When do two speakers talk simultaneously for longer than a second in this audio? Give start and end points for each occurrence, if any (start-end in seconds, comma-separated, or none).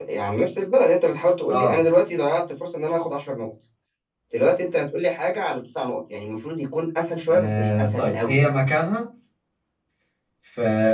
7.3-8.5